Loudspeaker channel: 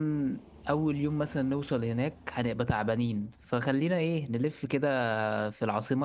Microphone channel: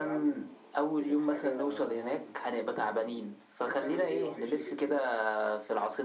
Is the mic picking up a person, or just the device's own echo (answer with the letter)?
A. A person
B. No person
A